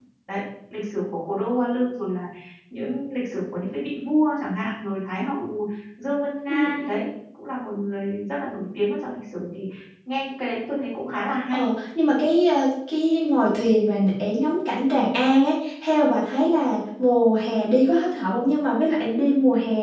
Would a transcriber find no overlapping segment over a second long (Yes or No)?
Yes